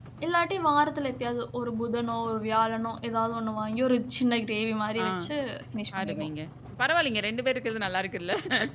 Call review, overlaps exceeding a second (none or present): none